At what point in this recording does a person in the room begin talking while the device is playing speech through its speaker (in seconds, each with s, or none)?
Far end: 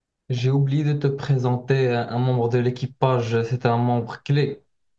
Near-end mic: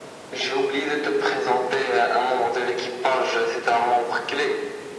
none